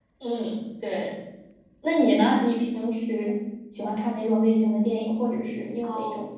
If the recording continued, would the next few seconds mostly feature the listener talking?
Yes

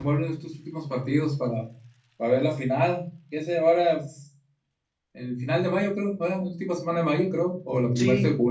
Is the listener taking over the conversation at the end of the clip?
Yes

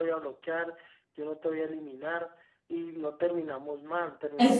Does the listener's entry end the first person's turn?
Yes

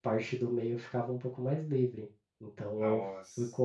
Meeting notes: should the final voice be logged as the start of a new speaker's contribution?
No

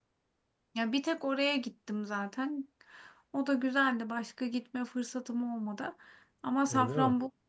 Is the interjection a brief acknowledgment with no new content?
Yes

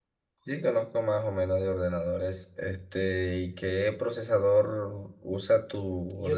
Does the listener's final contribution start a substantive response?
Yes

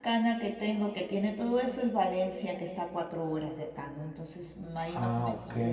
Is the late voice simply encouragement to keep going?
Yes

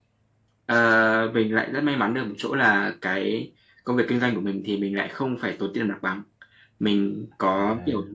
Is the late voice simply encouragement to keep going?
Yes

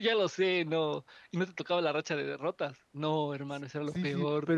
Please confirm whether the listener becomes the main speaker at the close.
Yes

